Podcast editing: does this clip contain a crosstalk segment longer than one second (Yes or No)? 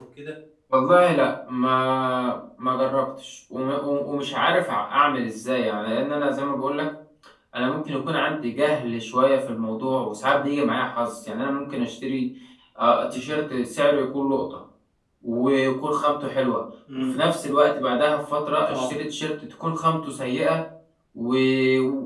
No